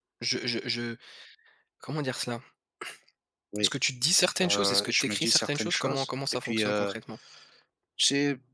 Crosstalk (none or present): present